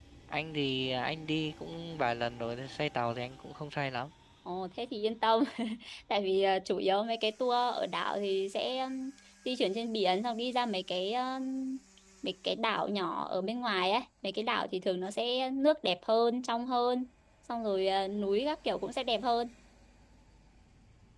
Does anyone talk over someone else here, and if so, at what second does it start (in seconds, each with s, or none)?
none